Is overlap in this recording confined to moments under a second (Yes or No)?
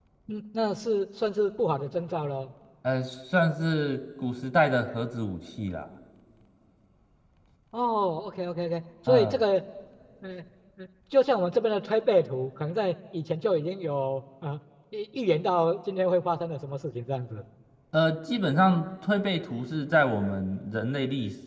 Yes